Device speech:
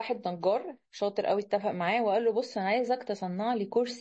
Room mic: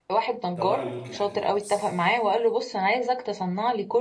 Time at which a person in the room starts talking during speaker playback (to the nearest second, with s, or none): 1 s